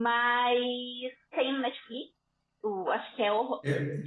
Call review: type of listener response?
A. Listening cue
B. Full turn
A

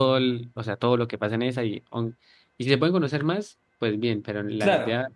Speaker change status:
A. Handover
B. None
B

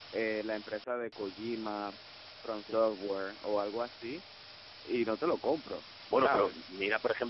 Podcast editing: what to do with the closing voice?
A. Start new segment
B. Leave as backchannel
A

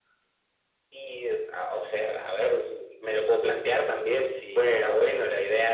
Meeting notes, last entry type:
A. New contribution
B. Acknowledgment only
B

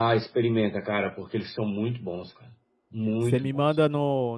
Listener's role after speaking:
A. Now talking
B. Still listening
A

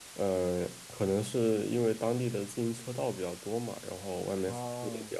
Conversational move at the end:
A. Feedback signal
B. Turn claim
B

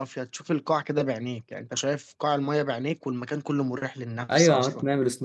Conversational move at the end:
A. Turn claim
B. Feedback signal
A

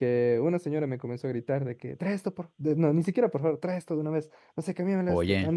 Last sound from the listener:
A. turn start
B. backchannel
B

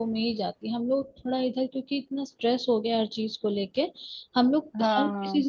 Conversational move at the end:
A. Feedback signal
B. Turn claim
A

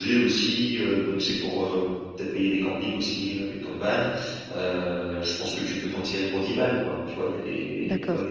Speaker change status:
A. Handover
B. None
B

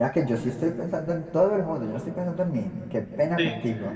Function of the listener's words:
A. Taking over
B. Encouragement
A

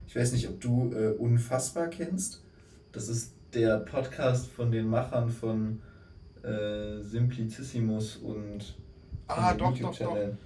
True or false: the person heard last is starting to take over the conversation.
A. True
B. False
A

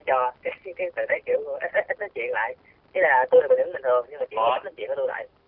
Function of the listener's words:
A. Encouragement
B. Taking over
A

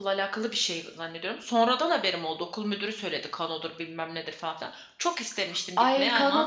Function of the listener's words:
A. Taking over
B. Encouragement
A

